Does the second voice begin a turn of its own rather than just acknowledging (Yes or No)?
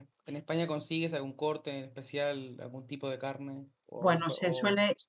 Yes